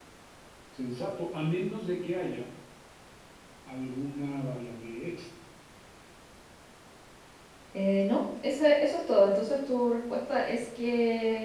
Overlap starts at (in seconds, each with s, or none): none